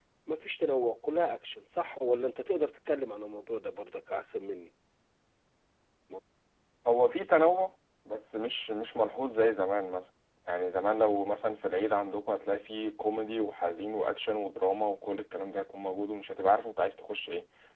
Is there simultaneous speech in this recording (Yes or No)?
No